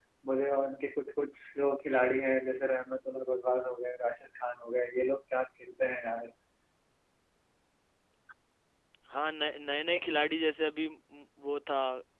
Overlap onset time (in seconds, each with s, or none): none